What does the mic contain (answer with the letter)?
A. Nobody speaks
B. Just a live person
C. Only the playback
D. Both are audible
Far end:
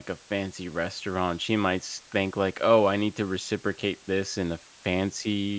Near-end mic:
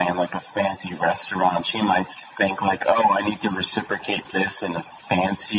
C